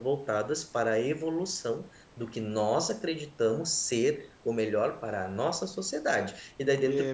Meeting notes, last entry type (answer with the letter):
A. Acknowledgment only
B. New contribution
A